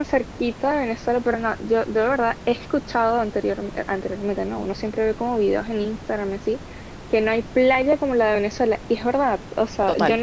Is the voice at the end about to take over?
No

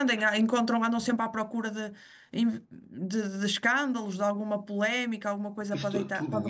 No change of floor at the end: No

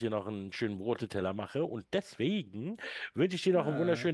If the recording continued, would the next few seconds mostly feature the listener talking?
No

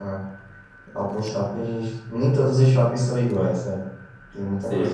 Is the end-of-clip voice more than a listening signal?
Yes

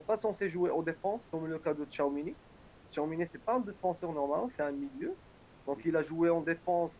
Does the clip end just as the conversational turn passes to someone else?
No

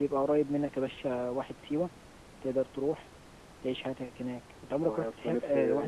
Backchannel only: No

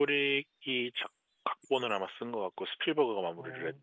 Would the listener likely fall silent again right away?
No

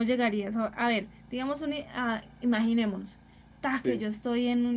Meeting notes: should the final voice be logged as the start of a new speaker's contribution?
No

